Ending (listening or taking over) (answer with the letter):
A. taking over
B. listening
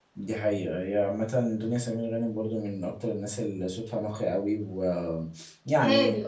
A